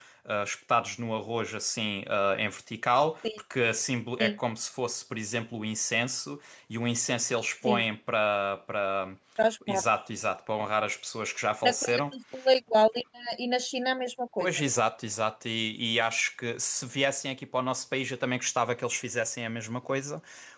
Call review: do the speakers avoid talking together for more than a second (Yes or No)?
Yes